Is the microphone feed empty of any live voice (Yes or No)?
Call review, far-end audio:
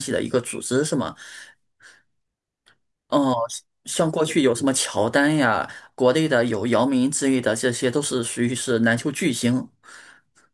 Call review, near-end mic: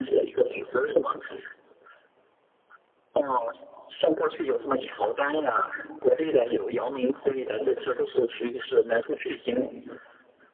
Yes